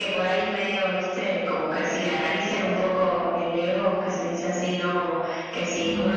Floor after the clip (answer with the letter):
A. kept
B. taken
A